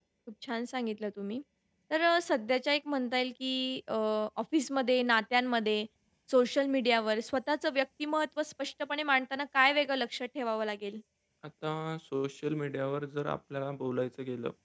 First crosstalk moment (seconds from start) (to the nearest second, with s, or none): none